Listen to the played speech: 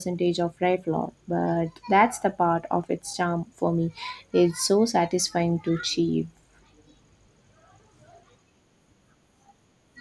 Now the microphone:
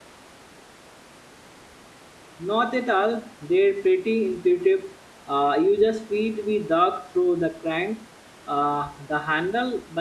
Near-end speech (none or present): present